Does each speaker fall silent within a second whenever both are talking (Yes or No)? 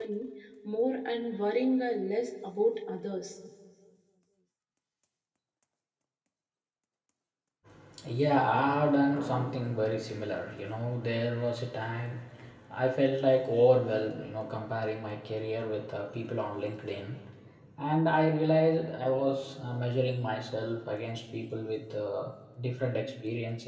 Yes